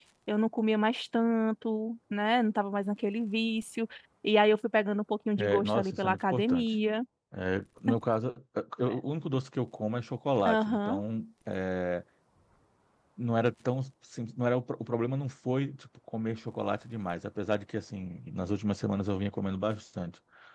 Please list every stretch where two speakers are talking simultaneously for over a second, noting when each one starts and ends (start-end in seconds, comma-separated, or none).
5.4-6.7